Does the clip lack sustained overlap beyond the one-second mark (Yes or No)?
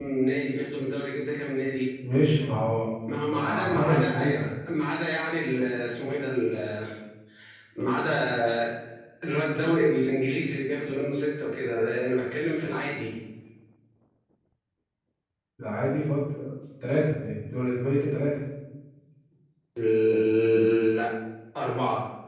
No